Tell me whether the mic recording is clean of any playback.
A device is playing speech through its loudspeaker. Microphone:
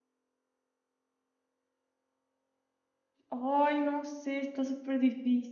Yes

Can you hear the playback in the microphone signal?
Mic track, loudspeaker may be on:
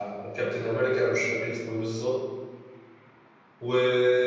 No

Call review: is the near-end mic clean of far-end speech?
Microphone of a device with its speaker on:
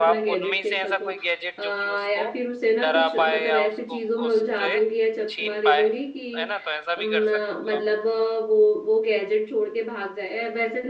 No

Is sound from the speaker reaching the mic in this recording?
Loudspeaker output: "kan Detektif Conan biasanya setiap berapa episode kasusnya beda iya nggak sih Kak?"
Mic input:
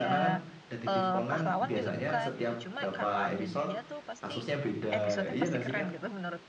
Yes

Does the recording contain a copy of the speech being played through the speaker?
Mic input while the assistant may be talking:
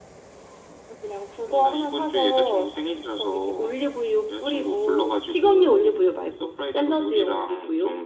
Yes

